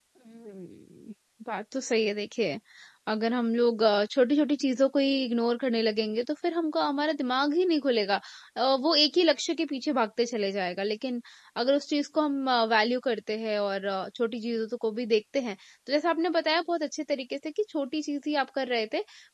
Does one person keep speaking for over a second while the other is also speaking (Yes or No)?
No